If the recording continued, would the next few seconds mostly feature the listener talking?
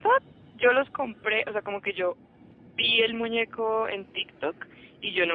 No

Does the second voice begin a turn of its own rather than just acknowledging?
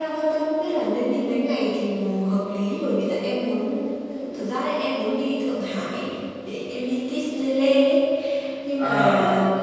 No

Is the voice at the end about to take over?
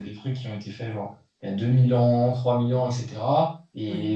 No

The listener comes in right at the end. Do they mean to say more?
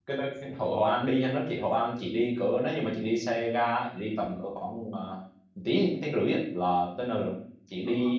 No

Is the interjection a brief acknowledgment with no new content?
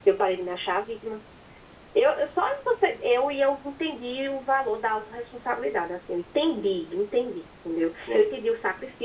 Yes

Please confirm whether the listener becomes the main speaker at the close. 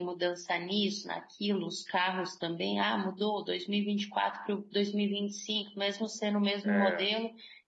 No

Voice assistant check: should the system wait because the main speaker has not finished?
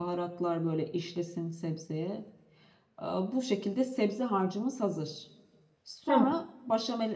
Yes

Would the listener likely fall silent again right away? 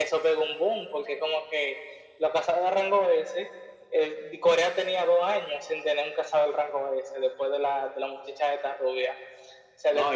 No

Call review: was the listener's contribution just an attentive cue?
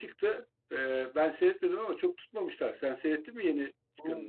No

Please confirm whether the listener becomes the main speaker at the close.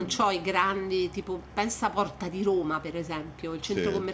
No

